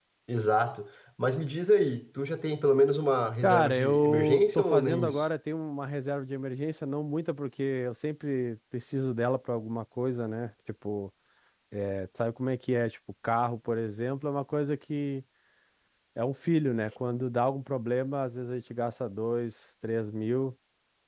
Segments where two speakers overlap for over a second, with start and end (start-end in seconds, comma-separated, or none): 3.4-5.2